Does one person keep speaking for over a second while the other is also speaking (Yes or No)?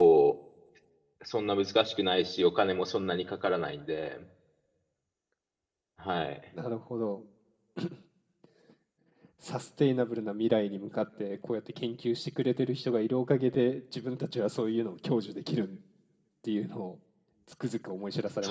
No